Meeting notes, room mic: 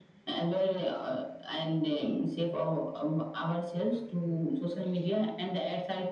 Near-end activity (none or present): none